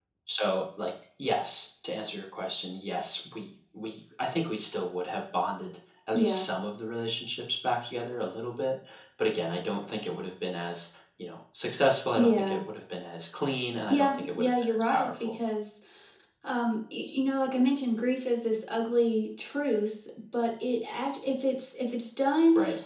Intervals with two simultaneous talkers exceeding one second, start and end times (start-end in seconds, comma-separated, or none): 13.9-15.3